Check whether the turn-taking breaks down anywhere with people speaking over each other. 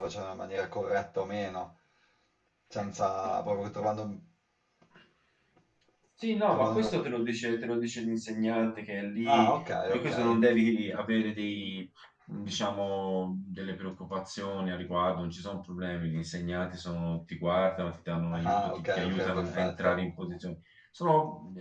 Yes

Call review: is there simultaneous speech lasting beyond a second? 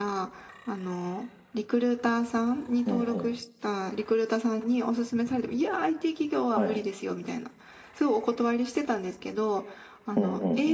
No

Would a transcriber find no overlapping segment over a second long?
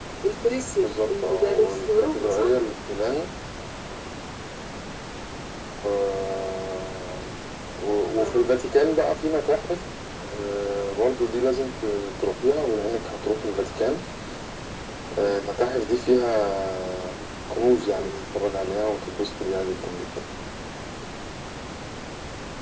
No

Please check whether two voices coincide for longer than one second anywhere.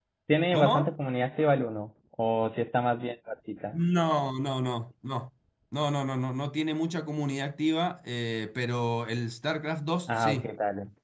No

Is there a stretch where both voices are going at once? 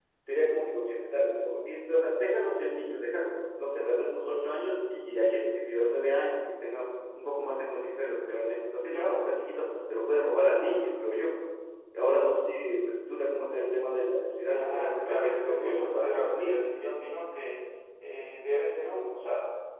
Yes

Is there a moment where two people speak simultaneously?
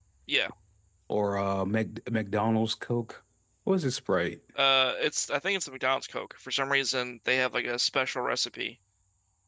No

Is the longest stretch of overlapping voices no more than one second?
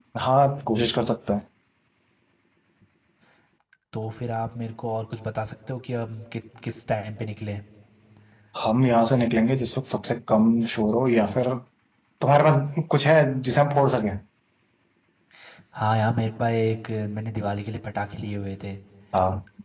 Yes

